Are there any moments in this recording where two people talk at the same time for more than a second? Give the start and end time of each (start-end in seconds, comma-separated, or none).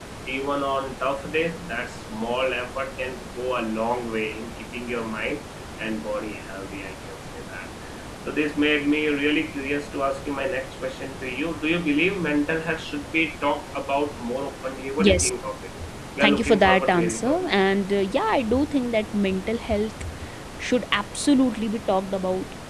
16.2-17.5